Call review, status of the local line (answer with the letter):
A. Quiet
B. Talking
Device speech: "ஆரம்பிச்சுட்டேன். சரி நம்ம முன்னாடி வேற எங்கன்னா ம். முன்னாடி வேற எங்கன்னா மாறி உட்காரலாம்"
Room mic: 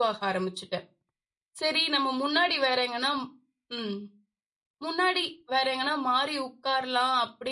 A